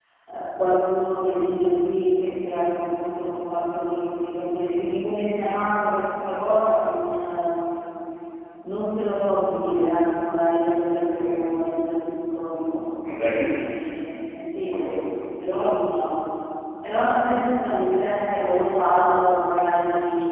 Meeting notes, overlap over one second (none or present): none